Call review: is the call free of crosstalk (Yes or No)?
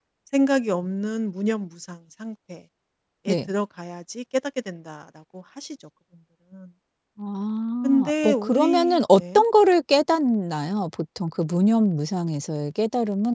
No